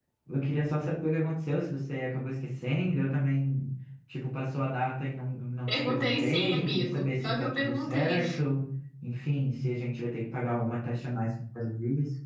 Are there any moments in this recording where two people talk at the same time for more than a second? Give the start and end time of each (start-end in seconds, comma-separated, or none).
5.7-8.2